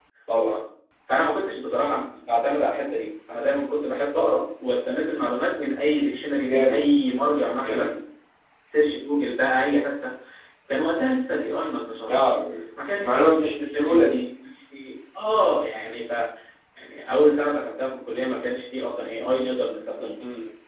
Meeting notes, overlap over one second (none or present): none